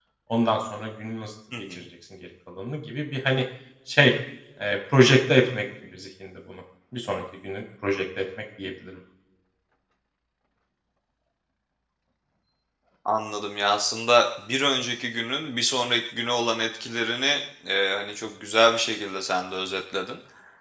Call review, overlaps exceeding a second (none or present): none